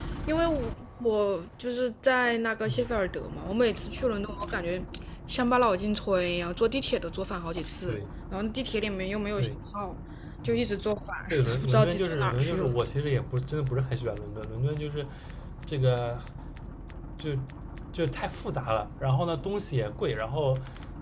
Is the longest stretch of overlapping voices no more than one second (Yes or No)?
No